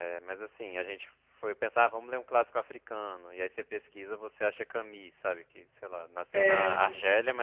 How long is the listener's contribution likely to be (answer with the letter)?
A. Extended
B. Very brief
B